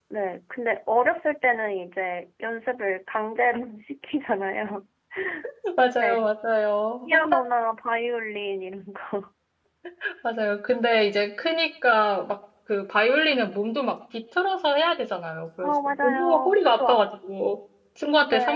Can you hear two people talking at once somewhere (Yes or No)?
Yes